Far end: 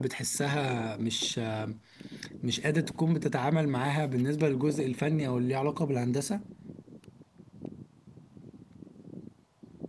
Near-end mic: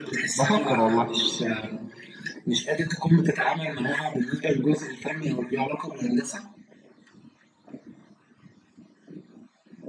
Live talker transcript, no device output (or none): بفكر والله